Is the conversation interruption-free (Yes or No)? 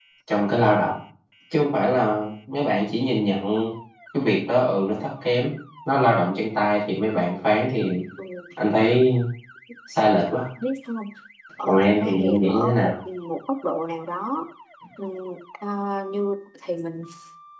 No